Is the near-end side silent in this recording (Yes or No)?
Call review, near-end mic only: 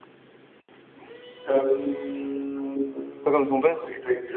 No